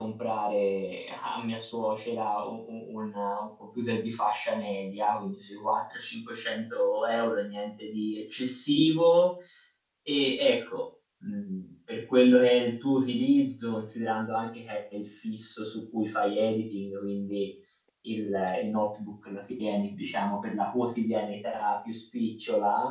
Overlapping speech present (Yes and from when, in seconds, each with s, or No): No